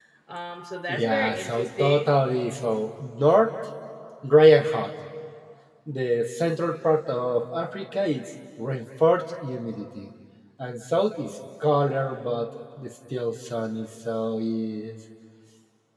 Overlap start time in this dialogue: 0.9 s

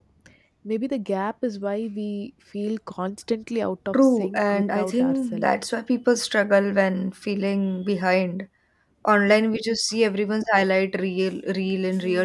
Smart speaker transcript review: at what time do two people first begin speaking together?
3.9 s

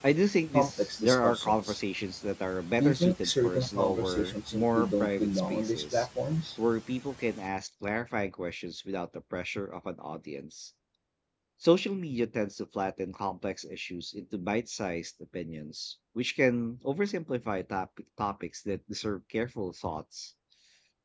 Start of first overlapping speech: 0.5 s

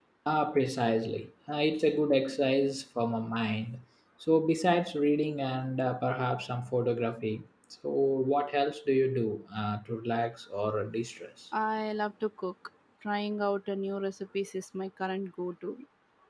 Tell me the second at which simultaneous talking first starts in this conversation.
none

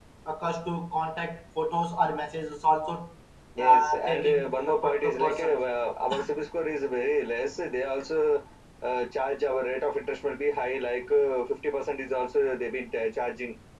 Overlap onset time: 3.6 s

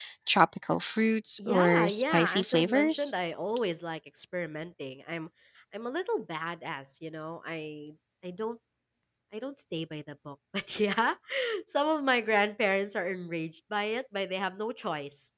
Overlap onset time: 1.4 s

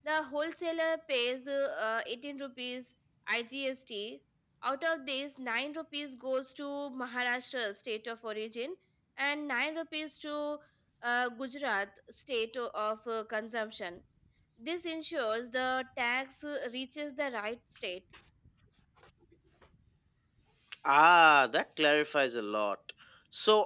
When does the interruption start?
none

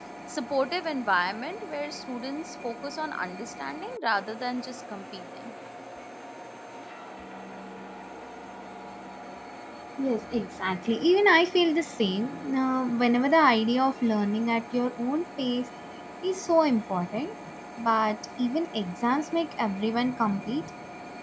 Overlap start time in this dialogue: none

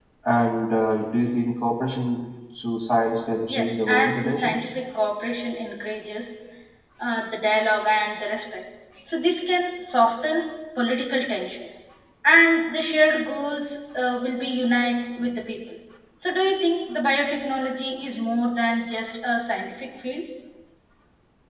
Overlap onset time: 3.5 s

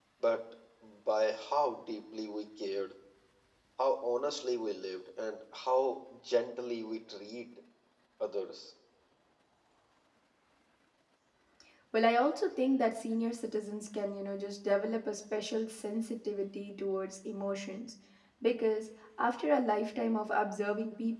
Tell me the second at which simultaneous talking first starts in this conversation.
none

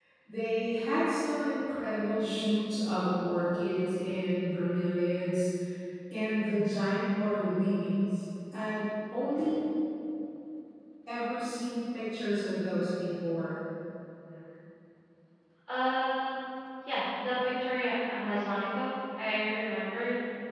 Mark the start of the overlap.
none

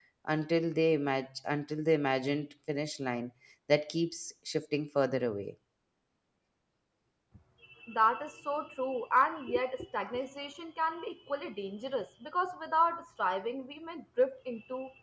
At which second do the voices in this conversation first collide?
none

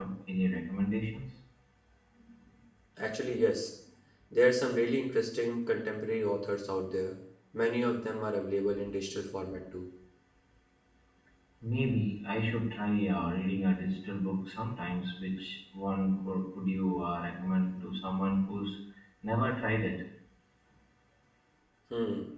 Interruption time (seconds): none

